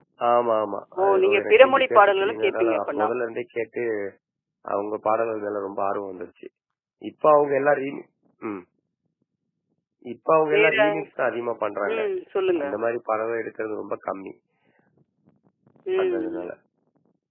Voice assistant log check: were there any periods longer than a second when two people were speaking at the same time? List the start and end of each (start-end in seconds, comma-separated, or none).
1.0-3.1